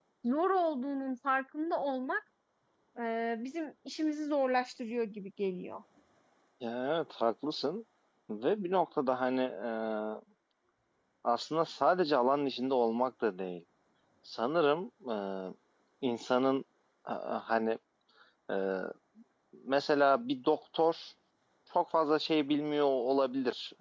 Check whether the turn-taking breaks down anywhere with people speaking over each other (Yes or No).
No